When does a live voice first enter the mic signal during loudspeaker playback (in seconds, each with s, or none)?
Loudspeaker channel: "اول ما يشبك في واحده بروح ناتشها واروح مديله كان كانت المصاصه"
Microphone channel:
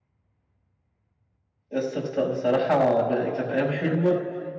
1.7 s